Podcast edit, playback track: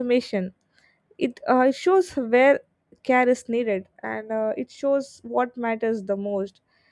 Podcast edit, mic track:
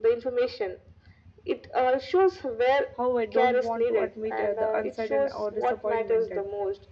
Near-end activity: present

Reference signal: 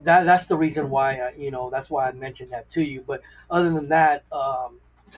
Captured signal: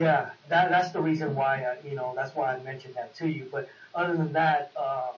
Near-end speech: none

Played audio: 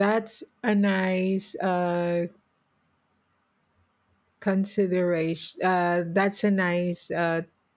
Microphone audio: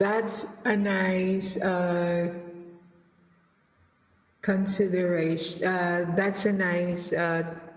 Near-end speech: none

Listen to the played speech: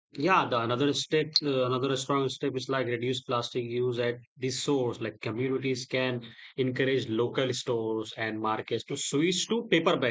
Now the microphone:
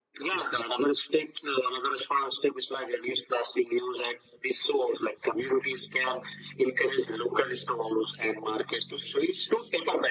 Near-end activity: none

